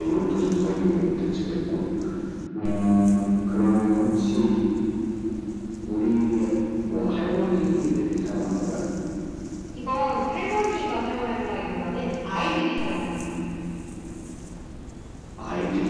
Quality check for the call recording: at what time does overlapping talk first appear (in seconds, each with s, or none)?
none